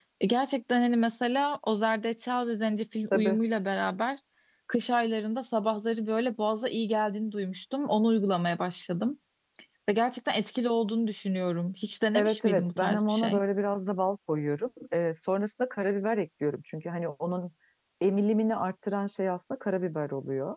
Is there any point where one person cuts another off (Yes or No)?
Yes